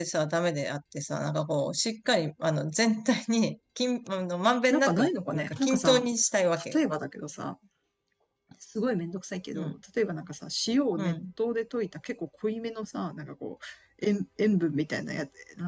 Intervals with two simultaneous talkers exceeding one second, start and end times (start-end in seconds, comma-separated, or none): 4.7-6.1